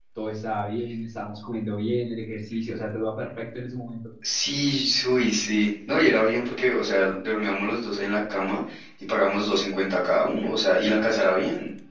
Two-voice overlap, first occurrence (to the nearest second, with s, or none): none